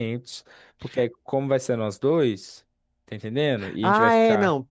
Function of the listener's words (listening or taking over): taking over